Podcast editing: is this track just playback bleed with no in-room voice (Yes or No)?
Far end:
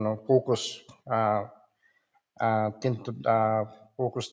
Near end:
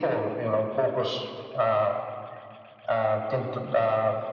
Yes